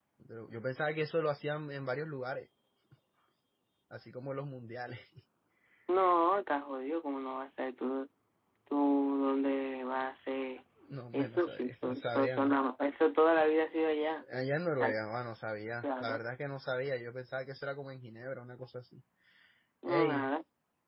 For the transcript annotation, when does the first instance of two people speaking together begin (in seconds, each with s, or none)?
11.1 s